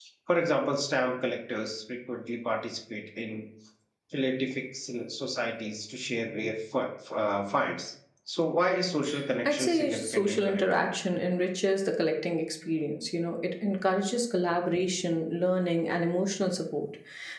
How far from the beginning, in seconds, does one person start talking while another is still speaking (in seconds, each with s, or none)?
9.4 s